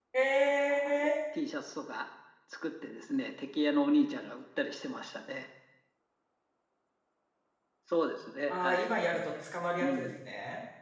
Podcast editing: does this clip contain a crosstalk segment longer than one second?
No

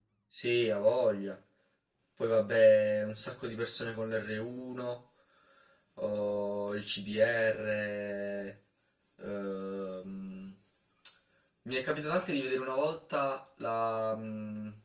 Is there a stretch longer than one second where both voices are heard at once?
No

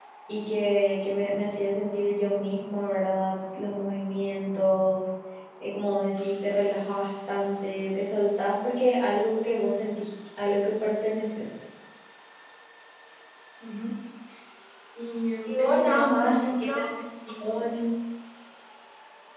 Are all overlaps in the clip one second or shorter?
No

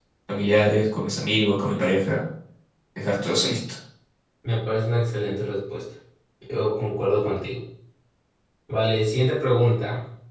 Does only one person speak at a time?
Yes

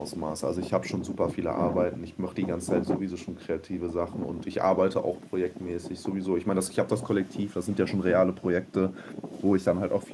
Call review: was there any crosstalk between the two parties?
No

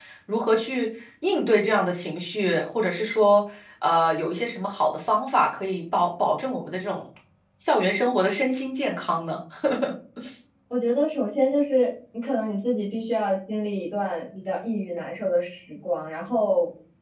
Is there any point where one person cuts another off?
No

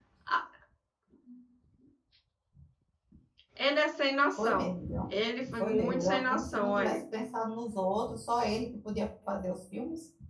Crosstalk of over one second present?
Yes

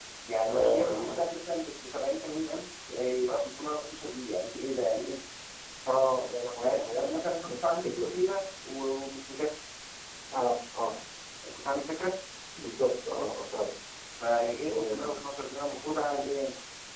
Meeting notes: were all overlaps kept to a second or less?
No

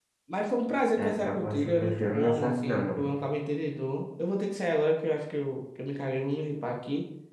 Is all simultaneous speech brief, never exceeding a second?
No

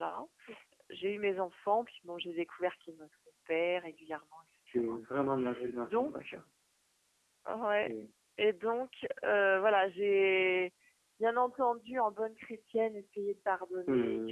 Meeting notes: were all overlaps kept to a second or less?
Yes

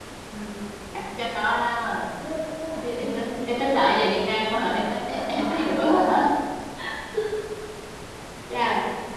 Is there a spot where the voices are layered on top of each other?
Yes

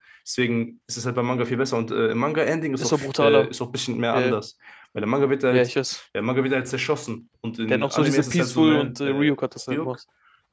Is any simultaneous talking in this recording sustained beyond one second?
Yes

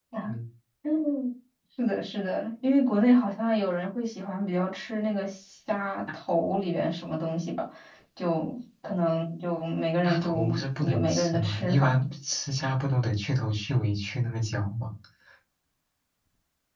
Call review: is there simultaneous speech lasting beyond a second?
Yes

